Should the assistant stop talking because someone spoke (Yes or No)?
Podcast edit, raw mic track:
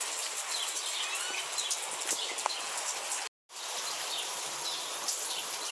No